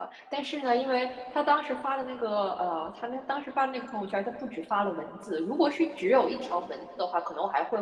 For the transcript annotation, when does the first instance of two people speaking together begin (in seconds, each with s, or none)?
none